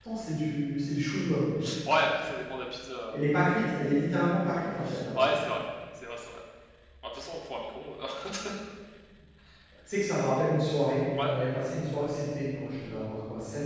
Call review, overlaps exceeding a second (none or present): none